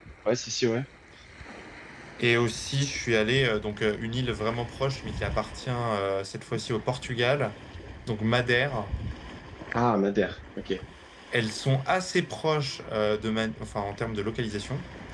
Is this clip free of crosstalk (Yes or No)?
Yes